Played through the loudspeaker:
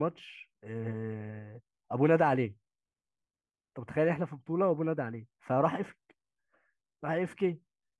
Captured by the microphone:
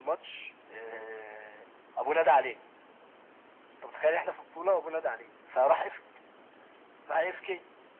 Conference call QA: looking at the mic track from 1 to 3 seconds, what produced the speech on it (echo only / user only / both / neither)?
echo only